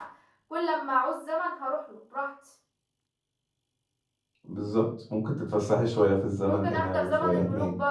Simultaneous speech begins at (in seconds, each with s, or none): 6.4 s